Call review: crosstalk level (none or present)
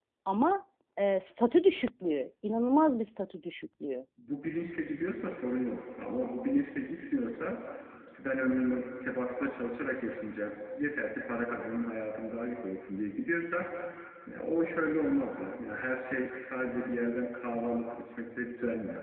none